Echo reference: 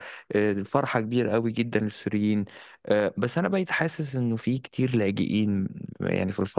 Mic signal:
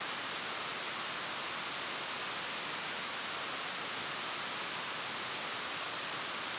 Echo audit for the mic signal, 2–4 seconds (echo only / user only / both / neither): neither